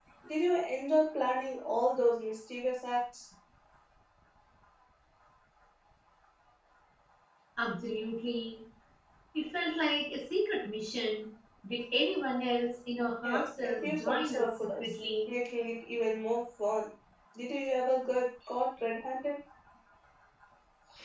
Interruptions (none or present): present